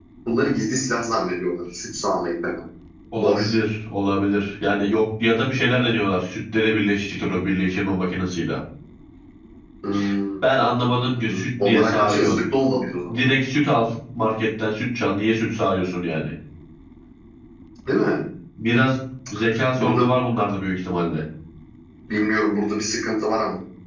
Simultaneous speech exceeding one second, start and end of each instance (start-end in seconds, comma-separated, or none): 10.8-12.4